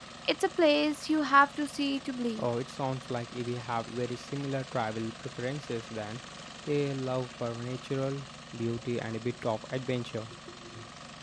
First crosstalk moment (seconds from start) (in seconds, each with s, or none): none